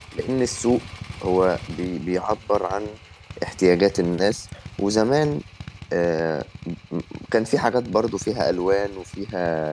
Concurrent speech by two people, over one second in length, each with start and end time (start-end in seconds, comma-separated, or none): none